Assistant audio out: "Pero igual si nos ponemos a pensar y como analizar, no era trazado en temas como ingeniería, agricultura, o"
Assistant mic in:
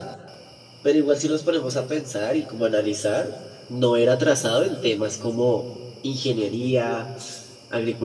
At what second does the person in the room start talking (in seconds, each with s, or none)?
none